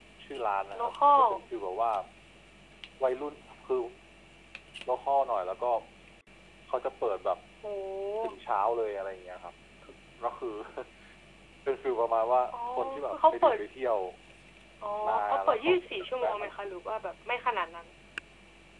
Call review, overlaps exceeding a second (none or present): present